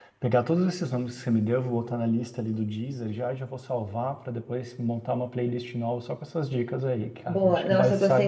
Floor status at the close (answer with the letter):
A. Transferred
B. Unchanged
A